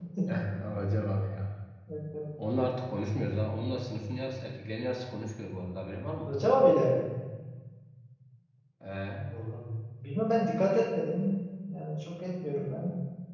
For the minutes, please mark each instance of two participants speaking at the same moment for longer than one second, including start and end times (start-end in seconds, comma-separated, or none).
none